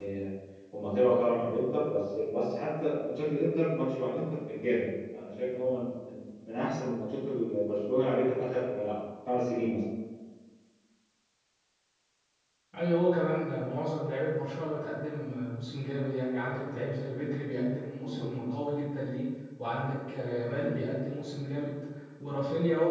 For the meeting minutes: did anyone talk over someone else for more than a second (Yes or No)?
No